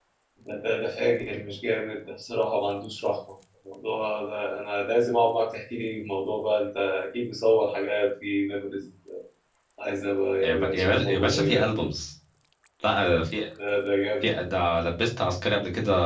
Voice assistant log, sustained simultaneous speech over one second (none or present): present